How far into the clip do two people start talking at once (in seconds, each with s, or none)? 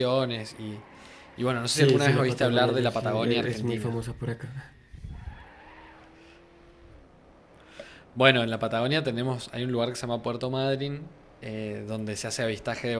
1.7 s